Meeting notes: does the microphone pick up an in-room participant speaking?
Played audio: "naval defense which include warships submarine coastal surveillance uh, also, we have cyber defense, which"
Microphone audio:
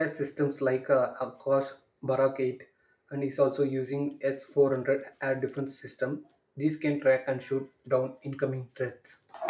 Yes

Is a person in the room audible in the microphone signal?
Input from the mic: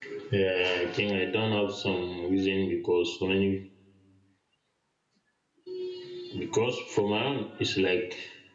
Yes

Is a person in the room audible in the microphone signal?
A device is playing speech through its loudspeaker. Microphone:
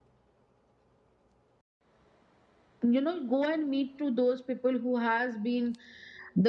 Yes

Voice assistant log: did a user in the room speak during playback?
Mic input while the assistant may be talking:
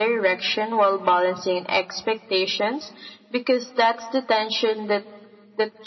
No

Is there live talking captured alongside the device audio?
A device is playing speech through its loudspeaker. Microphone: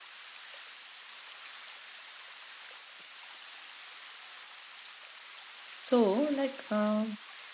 Yes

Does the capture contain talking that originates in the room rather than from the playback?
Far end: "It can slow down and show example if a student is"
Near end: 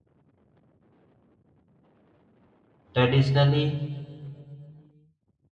Yes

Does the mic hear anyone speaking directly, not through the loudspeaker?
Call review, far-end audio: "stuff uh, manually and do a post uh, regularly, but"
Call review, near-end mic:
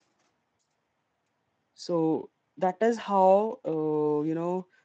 Yes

